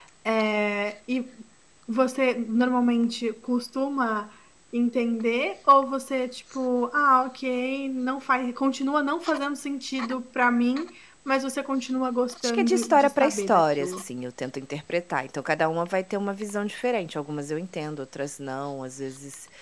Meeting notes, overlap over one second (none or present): present